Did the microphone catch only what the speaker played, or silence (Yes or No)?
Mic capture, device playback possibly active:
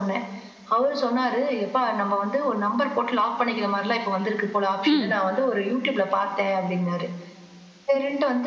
No